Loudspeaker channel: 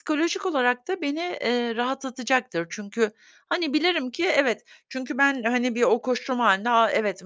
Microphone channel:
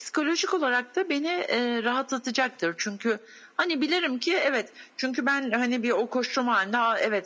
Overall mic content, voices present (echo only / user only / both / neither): echo only